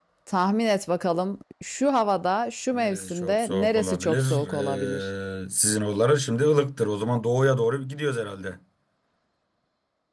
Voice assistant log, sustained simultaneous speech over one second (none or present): present